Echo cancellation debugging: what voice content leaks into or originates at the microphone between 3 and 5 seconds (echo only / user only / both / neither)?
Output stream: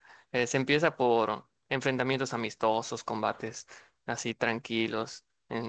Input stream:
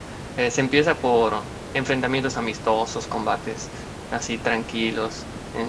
echo only